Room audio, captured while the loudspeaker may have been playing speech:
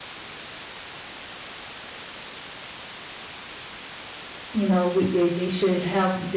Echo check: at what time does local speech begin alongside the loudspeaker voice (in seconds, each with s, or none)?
4.5 s